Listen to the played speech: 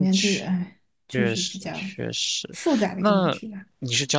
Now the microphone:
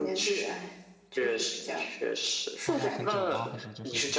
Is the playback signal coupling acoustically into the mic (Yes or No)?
Yes